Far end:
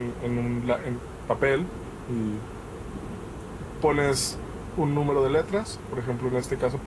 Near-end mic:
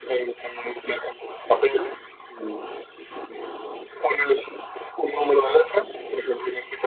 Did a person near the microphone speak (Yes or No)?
No